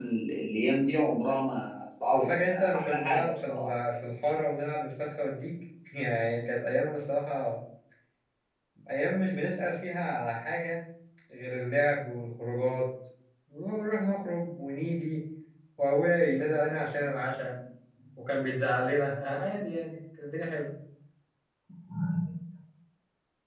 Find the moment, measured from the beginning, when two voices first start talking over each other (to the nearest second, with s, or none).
2 s